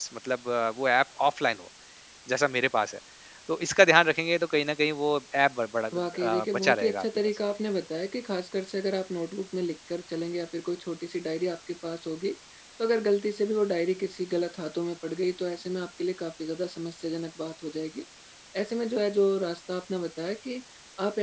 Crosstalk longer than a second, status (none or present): present